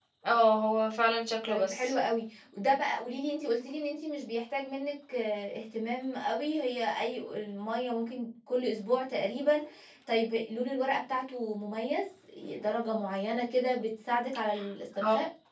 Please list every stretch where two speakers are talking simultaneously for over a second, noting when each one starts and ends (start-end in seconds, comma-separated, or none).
none